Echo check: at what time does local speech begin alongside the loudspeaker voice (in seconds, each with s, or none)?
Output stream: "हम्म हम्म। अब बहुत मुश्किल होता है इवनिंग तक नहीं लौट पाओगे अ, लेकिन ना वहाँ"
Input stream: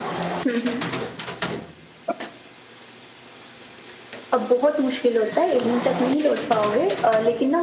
none